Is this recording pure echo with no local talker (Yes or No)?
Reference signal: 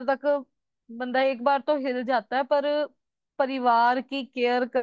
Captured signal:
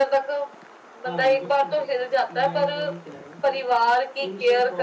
No